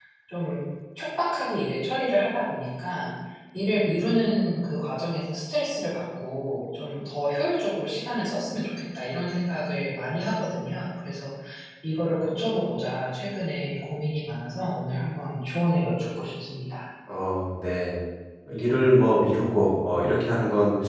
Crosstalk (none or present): none